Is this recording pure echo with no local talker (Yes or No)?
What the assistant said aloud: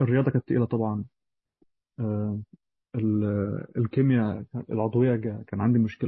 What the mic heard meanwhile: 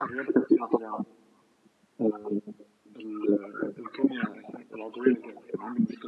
Yes